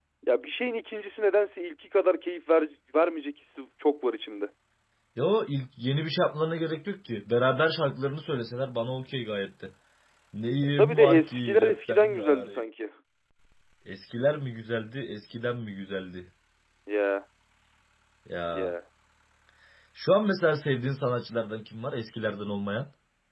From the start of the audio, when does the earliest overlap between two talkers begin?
10.8 s

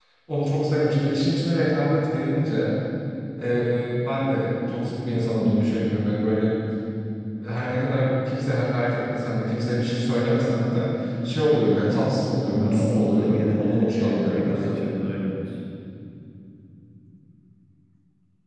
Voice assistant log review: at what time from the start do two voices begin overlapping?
12.5 s

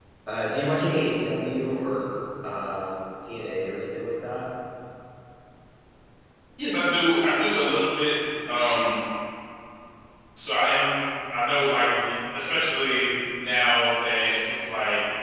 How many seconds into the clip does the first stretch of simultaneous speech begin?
none

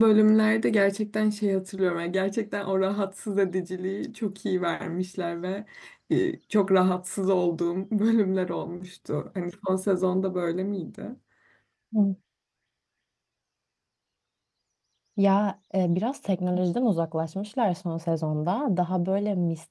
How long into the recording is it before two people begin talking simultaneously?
none

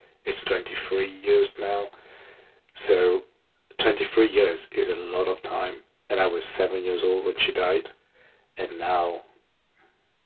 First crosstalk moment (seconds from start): none

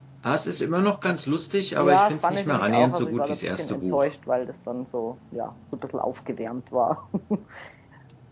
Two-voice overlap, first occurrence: 1.8 s

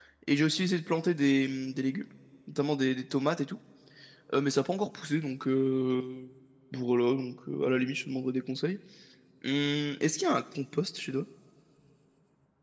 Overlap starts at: none

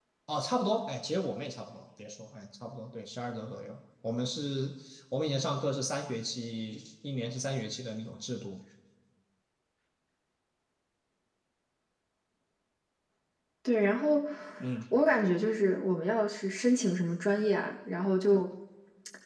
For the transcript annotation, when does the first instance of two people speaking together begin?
none

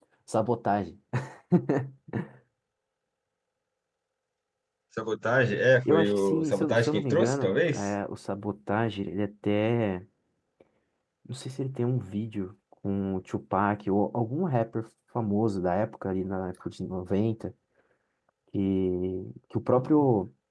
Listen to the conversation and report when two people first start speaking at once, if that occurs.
5.8 s

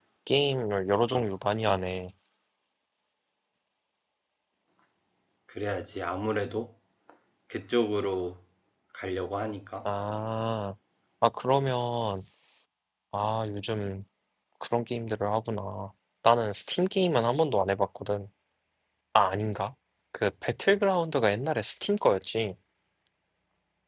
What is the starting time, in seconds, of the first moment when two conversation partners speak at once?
none

